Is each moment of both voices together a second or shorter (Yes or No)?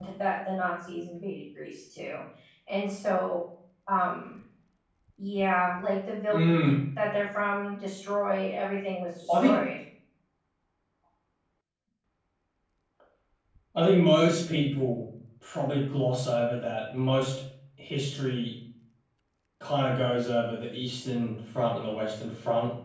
Yes